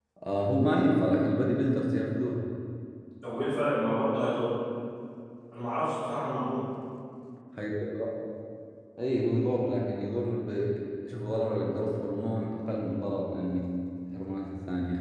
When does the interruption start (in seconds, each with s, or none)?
none